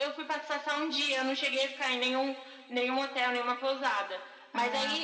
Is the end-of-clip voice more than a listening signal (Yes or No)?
No